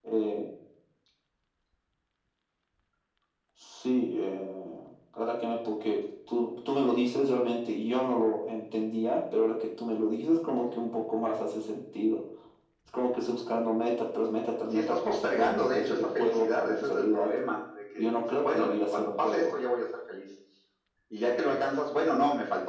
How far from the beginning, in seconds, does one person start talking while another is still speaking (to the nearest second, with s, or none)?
15 s